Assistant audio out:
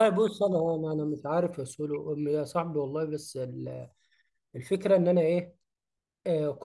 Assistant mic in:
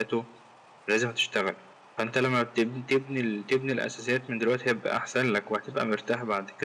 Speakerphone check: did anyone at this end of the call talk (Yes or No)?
Yes